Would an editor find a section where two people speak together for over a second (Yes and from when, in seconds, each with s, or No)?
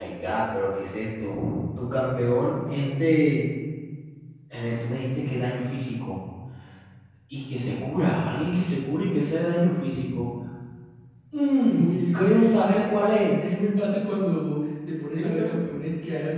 Yes, from 11.6 s